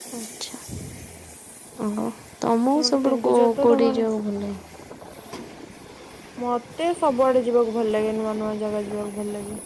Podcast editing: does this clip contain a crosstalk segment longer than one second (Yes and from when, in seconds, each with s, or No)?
Yes, from 2.8 s